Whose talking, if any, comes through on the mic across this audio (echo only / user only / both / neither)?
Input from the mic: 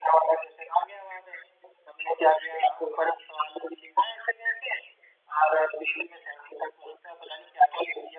echo only